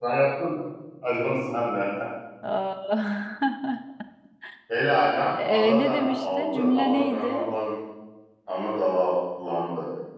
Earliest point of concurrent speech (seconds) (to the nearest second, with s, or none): 5 s